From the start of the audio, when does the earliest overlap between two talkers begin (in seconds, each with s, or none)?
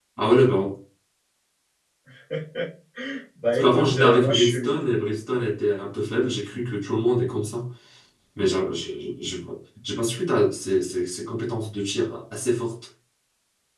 3.4 s